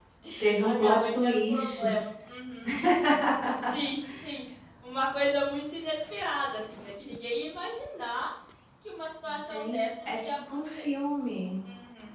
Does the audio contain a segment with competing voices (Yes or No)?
Yes